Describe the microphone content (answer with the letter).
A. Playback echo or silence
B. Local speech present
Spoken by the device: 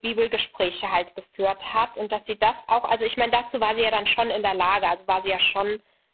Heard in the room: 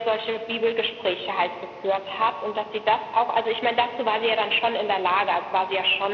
A